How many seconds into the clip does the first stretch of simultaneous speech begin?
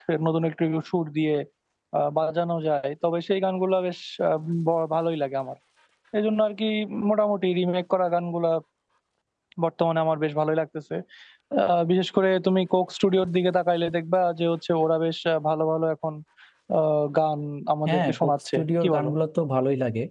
17.9 s

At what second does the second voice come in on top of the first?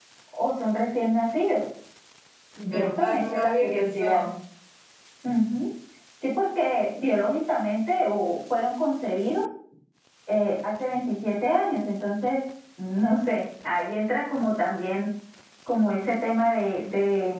2.7 s

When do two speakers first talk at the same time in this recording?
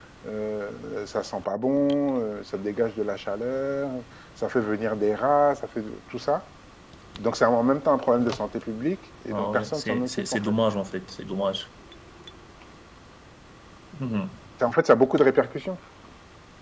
9.3 s

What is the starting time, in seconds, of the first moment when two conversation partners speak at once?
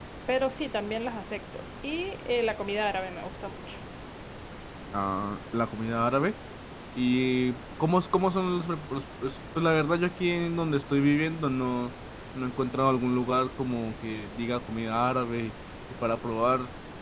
none

